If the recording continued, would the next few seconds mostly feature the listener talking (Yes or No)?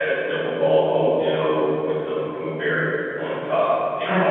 Yes